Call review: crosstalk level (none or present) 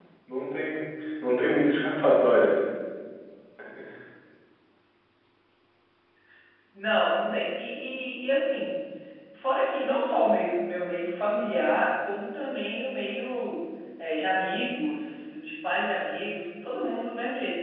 none